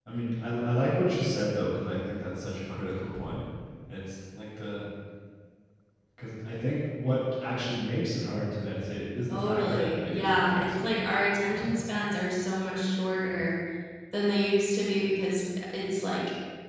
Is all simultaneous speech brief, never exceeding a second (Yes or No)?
No